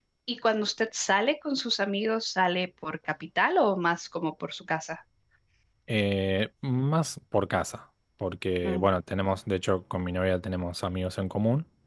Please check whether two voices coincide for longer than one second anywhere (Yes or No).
No